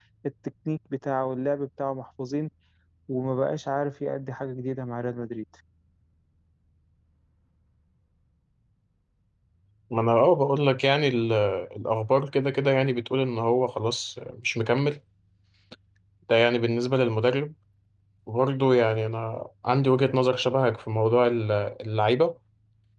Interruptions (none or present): none